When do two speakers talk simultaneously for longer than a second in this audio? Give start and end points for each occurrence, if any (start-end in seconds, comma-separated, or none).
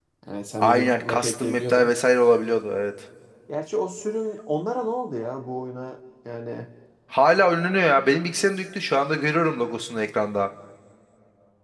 0.6-1.9